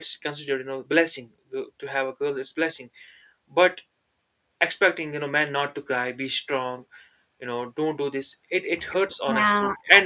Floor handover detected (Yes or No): Yes